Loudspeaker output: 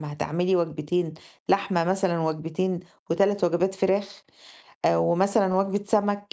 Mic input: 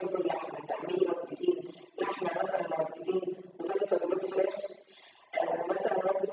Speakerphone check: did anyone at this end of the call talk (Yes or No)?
No